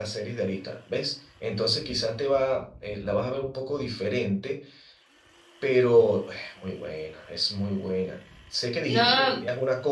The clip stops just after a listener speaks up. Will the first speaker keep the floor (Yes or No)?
Yes